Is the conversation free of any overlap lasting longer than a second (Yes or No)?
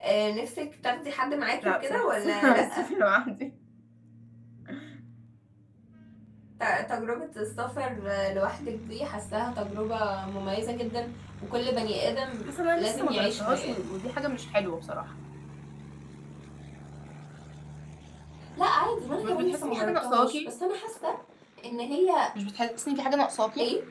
No